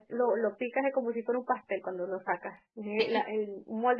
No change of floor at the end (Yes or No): Yes